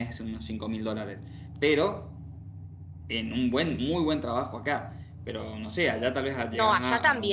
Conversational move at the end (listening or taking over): taking over